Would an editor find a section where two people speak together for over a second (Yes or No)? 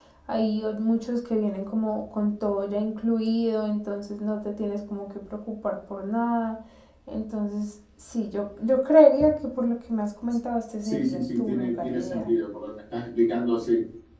Yes